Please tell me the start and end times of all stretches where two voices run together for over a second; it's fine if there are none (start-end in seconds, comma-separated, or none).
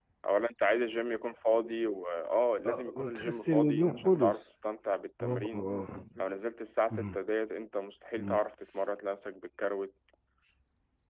2.6-4.5